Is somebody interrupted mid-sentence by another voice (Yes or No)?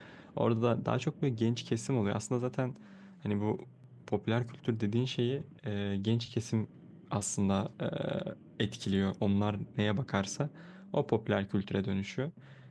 No